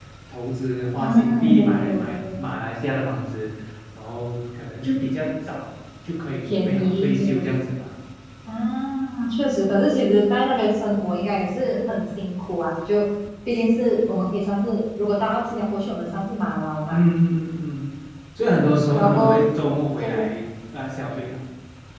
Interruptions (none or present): present